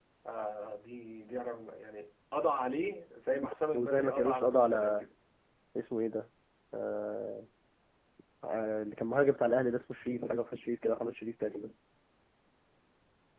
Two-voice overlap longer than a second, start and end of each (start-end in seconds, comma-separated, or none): 3.7-5.0